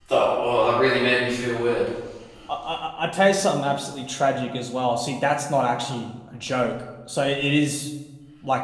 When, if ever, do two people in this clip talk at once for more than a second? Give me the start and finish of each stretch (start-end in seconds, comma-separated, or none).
none